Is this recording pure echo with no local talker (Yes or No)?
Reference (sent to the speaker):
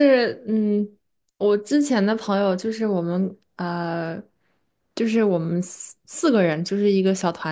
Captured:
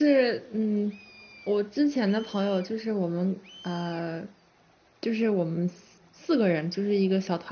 Yes